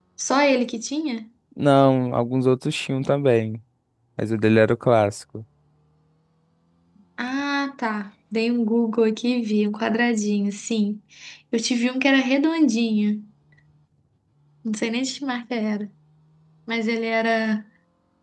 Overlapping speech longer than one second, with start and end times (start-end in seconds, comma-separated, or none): none